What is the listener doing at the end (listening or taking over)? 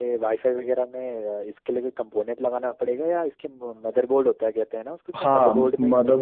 taking over